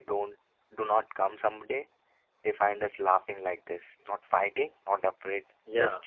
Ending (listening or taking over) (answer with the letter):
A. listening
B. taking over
B